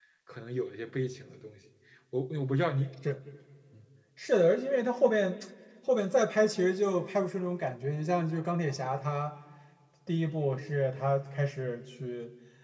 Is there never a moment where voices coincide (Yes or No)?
Yes